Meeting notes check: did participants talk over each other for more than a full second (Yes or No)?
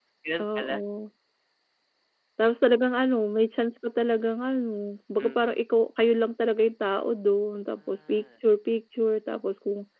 No